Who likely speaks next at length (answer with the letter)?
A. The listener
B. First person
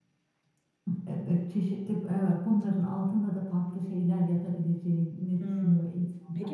A